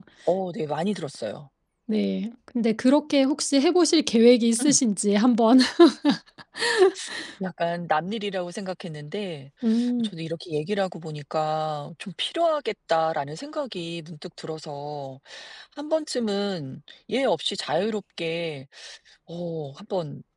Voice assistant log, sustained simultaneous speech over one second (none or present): none